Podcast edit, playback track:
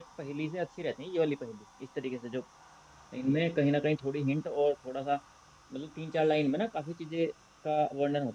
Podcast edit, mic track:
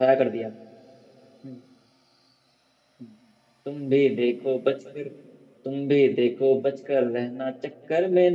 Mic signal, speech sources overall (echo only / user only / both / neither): user only